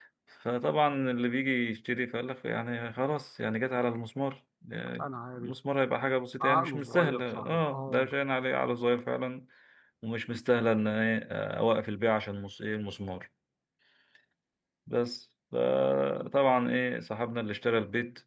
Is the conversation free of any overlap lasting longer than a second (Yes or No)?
No